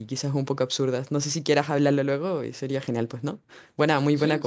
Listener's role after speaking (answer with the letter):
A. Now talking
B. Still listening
A